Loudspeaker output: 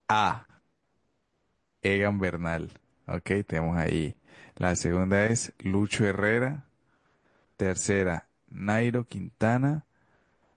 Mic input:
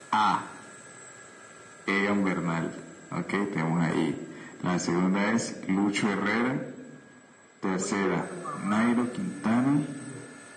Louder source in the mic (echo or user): echo